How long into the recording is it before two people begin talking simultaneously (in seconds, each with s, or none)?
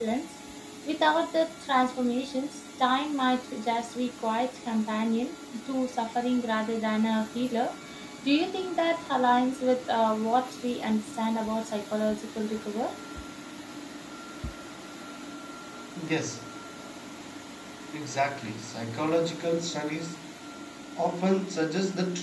none